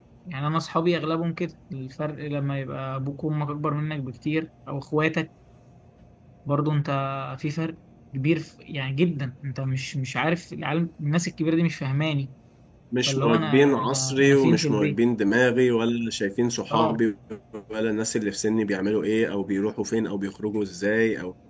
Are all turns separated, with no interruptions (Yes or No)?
No